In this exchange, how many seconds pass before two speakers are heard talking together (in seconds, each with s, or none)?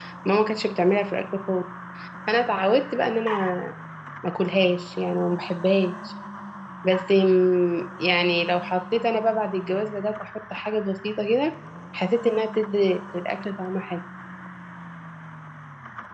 none